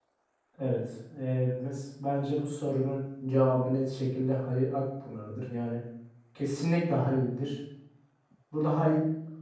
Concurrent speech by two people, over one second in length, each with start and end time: none

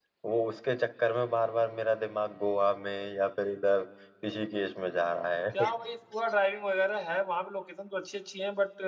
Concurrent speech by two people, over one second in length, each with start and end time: none

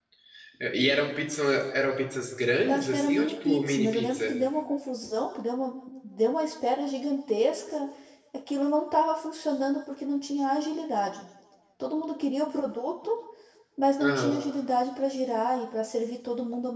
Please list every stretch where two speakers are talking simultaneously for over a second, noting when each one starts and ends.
2.7-4.3

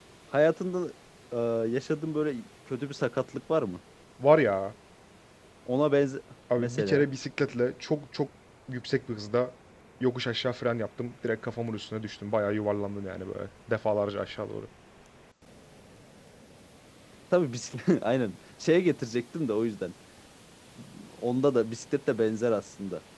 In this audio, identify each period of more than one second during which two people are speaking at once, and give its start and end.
none

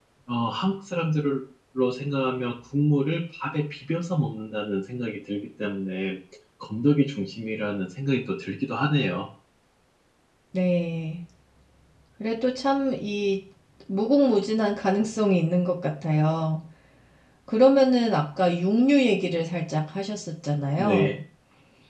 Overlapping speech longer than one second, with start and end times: none

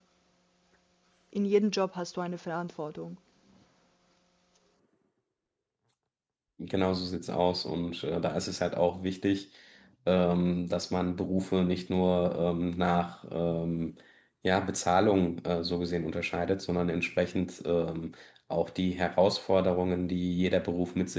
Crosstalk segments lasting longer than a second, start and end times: none

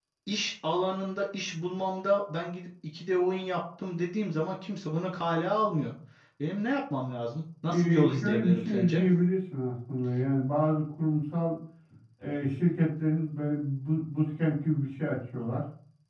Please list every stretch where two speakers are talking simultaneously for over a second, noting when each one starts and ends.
7.7-9.0

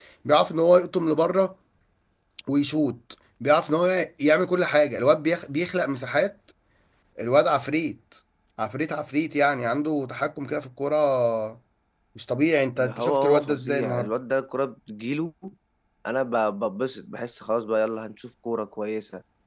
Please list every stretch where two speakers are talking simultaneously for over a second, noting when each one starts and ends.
12.8-14.1

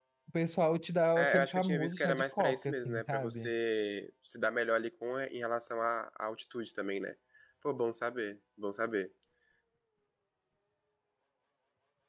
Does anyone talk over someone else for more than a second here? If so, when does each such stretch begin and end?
1.2-3.5

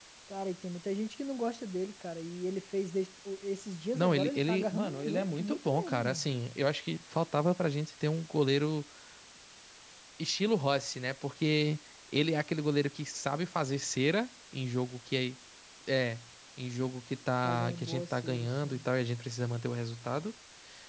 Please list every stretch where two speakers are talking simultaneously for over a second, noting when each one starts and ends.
3.9-6.2, 17.4-18.9

